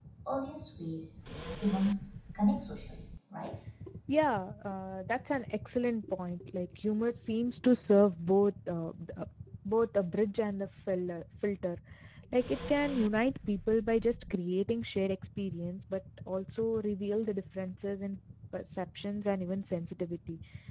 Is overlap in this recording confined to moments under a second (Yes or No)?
Yes